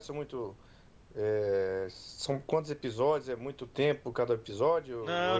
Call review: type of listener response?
taking over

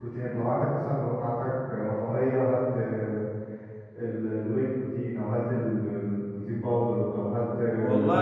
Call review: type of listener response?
taking over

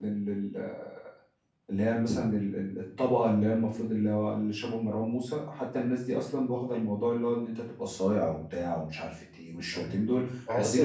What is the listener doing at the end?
taking over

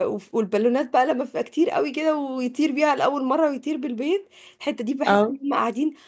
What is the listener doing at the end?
listening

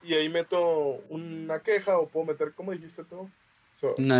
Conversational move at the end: listening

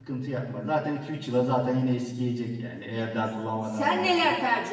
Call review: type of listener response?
taking over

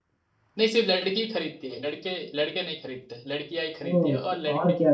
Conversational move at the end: taking over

